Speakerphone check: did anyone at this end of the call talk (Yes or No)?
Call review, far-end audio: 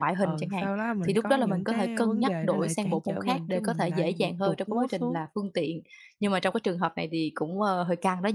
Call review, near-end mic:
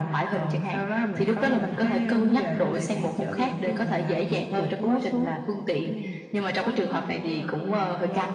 Yes